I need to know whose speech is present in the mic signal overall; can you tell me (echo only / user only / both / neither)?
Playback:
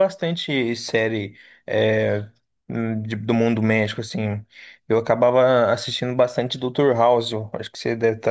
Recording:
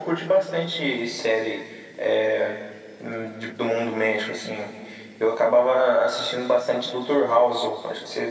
echo only